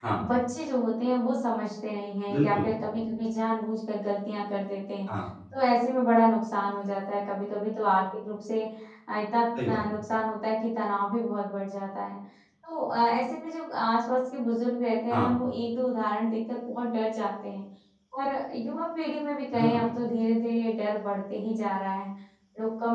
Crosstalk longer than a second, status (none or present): none